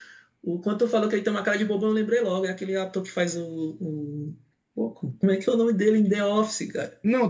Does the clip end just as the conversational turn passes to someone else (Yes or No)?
Yes